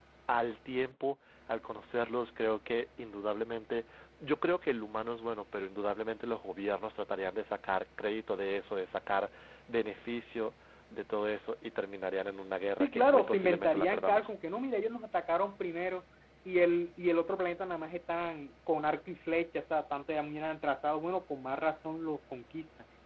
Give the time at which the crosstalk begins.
12.8 s

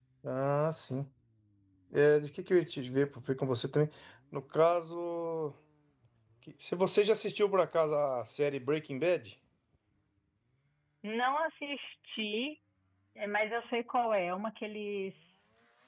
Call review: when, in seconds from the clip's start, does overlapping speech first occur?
none

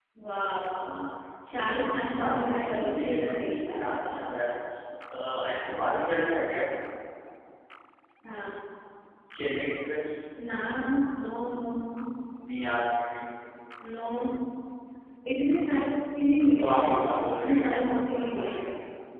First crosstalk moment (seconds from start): 2.2 s

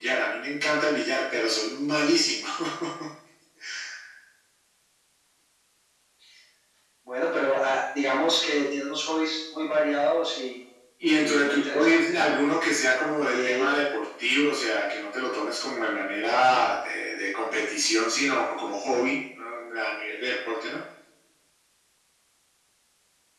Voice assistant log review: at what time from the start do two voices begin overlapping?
11.1 s

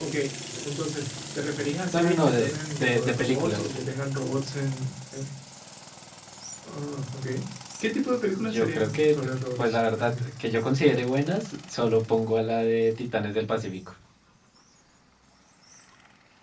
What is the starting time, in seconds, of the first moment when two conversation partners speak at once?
1.9 s

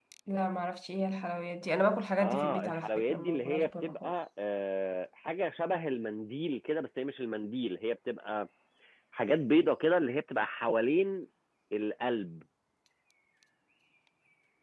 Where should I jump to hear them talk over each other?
2.2 s

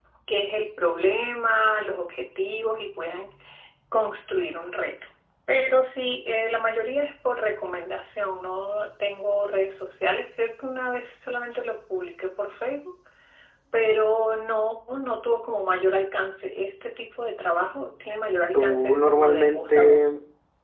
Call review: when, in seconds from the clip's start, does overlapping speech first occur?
18.5 s

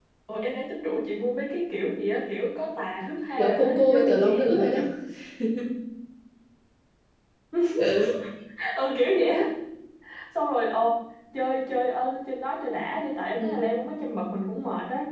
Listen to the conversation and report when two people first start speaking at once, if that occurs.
3.4 s

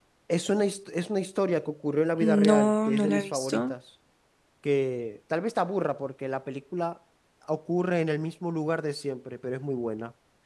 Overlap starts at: 2.2 s

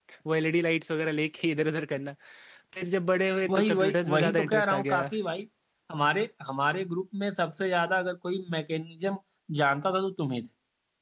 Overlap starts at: 3.5 s

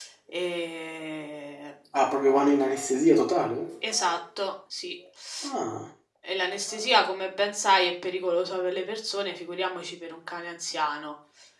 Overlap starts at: none

